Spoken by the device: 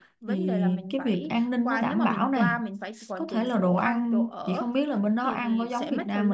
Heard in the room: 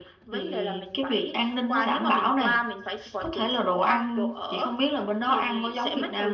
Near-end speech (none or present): none